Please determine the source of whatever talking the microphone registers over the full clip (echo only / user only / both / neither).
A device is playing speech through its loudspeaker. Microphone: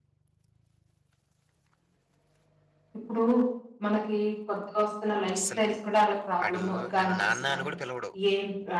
both